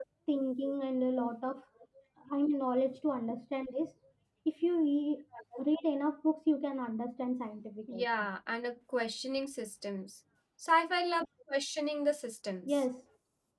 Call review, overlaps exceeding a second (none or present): none